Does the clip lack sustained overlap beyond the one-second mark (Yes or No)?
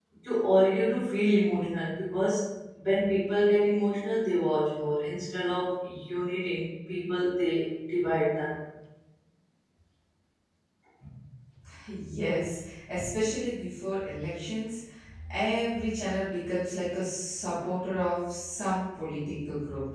Yes